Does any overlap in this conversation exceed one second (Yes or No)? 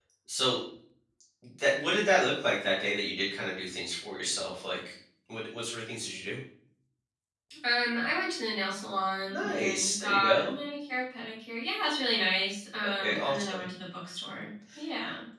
Yes